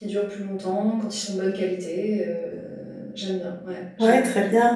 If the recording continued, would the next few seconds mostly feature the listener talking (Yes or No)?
Yes